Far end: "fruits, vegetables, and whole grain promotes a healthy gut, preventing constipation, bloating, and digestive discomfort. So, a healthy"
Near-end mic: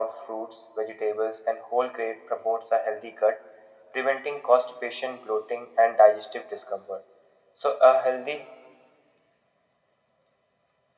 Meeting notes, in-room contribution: none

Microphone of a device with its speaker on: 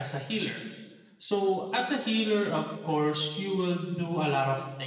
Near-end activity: none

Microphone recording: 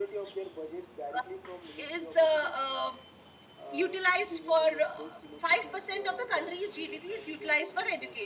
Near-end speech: none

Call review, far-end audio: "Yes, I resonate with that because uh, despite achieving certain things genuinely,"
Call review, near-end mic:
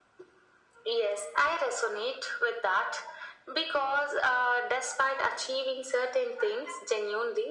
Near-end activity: none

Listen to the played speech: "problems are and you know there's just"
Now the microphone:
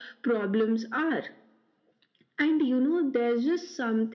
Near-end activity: none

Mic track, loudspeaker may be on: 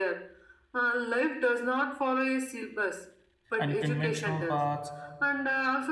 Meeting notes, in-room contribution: present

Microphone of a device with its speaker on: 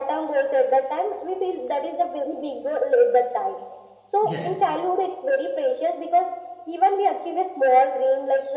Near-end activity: present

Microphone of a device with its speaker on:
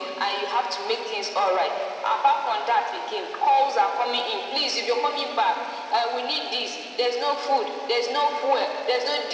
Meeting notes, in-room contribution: none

